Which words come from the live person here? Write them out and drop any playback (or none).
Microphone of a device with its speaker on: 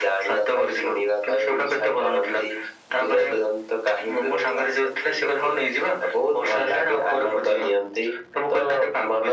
none